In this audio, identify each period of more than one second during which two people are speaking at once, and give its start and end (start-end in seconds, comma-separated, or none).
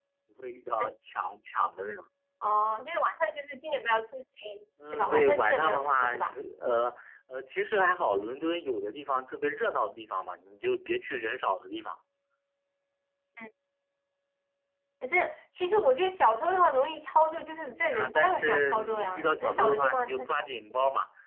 4.9-6.3, 17.7-20.5